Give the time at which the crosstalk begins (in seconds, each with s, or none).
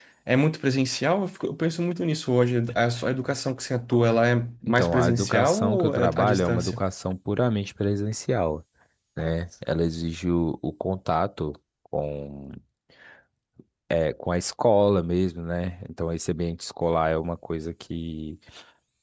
4.7 s